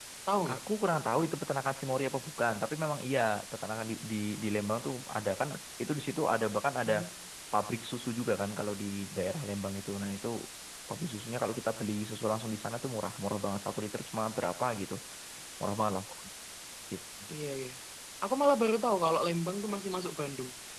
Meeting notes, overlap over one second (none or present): none